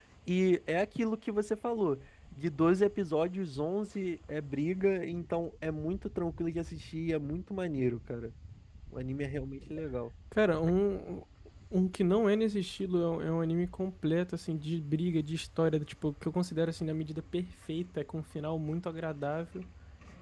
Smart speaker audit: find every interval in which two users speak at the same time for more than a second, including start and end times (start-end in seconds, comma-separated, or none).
none